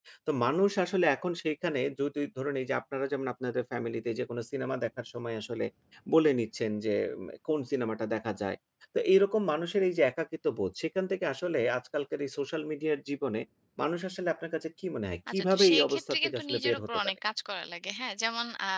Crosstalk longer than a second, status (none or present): present